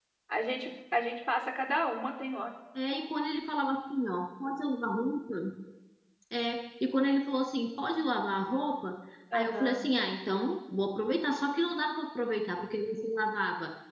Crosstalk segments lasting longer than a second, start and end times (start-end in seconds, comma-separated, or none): none